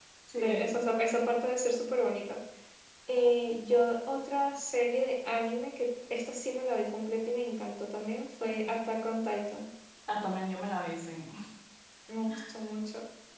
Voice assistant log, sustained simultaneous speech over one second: none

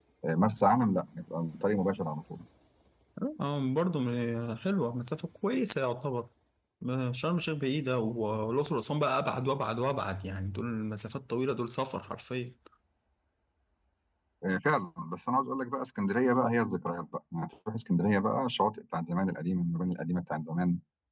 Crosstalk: none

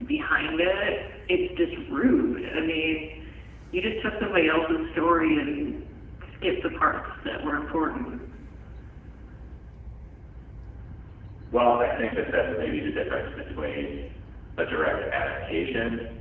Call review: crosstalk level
none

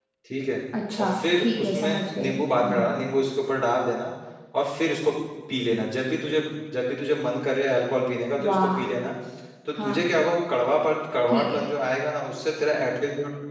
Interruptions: present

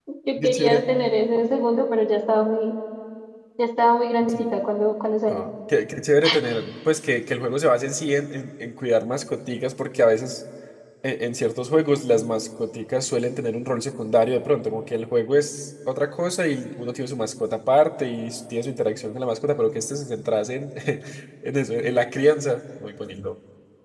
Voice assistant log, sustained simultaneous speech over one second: none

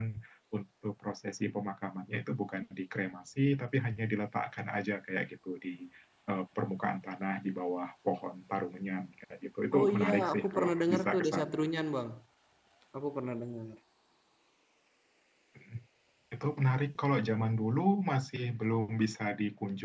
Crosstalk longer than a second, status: present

